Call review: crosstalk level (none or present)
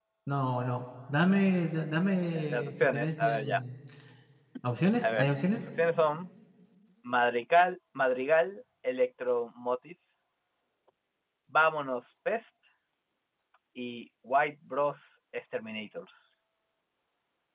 present